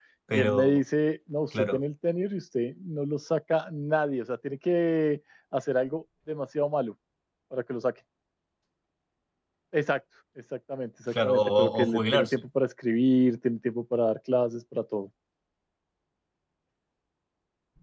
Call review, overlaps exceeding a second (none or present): present